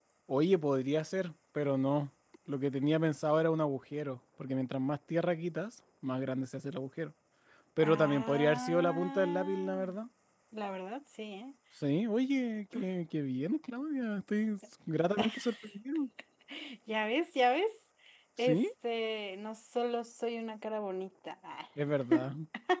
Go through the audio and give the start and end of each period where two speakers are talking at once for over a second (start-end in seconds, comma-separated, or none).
7.8-9.9